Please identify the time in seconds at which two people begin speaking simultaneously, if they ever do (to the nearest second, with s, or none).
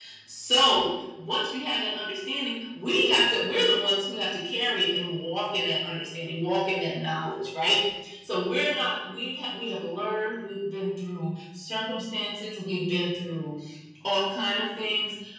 none